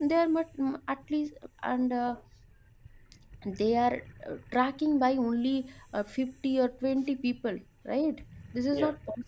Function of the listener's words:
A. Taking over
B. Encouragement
B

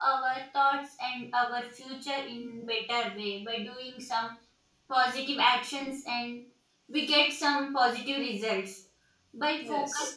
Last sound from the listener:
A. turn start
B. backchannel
B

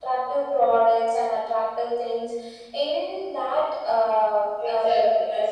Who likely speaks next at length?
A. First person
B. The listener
B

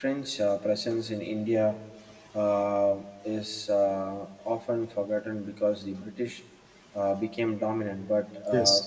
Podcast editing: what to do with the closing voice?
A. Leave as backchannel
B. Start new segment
A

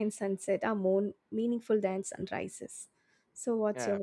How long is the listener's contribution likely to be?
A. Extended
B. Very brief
A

